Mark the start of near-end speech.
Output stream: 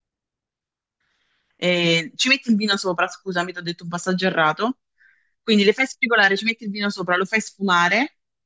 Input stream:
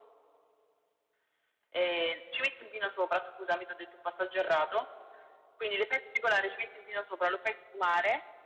none

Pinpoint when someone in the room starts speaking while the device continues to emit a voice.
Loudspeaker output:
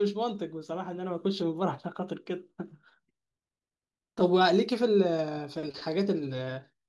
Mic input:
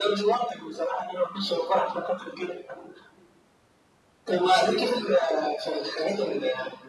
none

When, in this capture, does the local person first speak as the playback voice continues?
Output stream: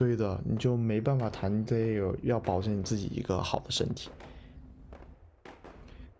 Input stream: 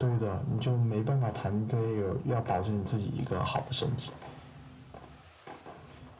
none

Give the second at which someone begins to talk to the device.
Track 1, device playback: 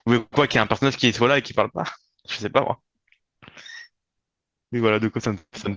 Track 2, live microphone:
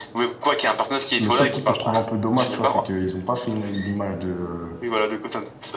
1.2 s

